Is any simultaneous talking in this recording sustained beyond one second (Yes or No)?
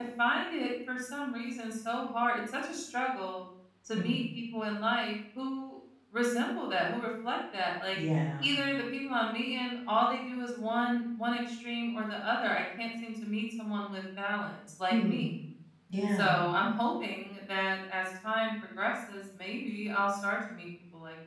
No